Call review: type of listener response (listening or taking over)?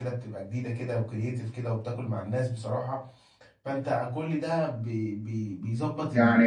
taking over